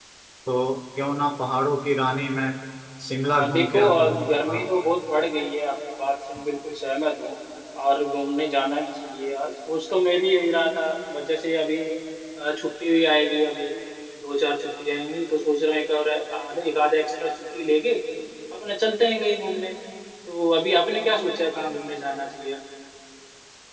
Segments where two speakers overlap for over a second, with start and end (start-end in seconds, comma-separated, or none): 3.2-4.7